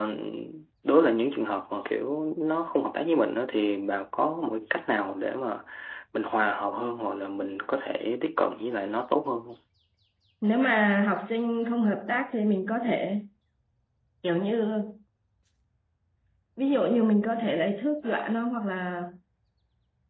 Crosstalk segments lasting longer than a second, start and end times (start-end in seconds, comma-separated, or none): none